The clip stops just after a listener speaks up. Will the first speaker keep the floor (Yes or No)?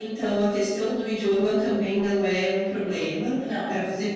Yes